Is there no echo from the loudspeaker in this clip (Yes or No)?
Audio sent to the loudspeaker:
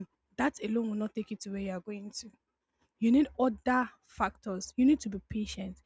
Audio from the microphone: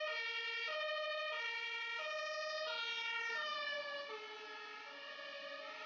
Yes